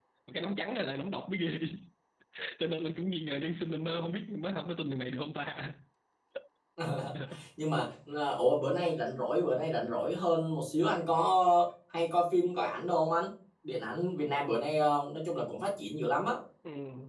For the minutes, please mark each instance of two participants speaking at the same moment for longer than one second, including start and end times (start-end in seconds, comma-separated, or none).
none